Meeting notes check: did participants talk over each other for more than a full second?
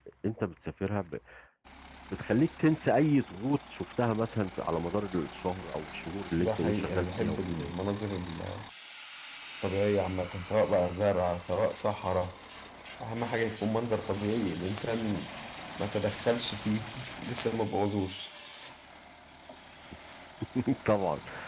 Yes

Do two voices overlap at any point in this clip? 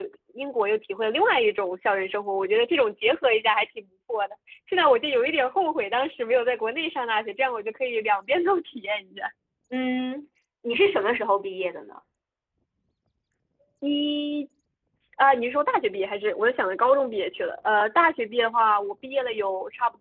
No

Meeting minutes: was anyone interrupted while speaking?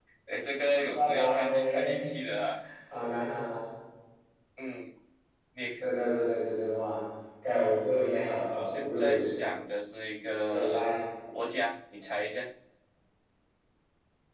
Yes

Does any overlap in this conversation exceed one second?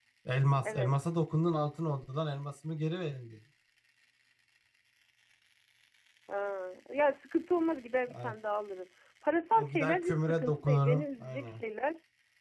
Yes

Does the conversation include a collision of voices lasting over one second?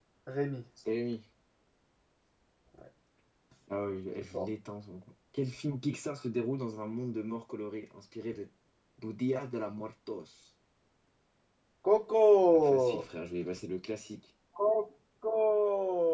No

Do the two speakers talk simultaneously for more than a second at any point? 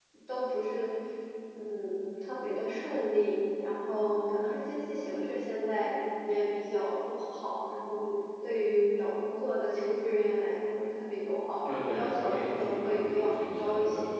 Yes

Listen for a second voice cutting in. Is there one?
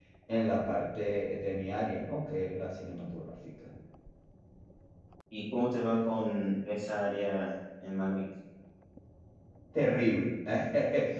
No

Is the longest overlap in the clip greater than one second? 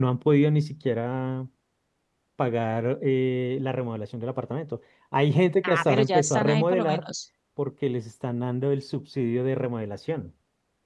Yes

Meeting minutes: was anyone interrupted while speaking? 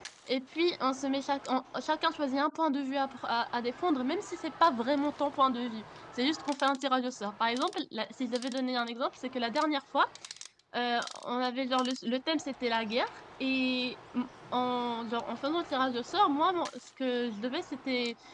No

